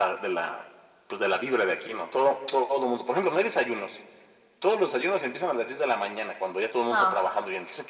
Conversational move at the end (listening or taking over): listening